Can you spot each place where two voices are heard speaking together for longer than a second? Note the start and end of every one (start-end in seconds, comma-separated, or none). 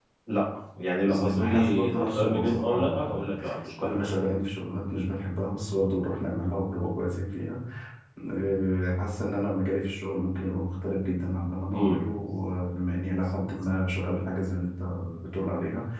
1.0-3.3